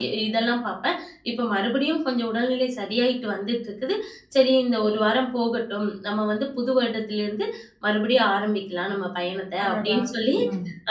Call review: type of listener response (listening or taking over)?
listening